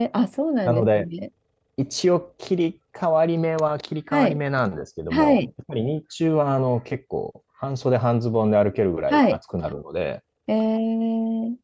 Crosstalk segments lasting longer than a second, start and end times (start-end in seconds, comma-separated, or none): none